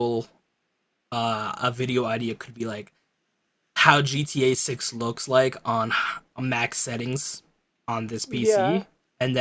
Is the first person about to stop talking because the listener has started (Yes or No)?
No